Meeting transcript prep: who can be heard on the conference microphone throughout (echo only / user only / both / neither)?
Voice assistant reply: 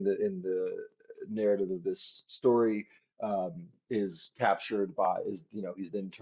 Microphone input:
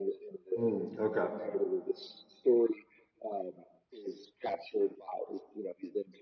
both